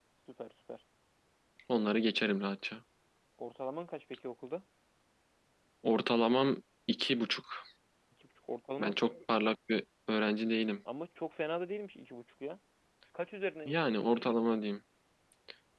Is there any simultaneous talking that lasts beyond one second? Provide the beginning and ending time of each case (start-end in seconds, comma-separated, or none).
none